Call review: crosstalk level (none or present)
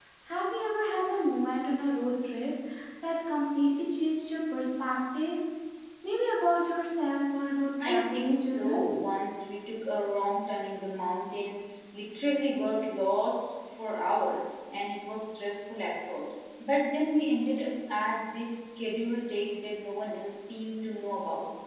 present